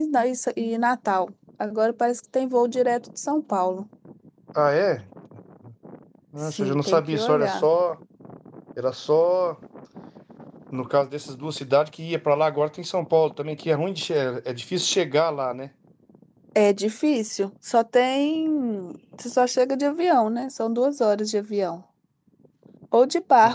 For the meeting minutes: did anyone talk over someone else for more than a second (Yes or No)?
Yes